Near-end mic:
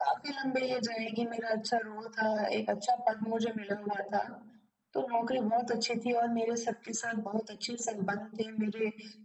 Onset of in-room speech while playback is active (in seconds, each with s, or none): none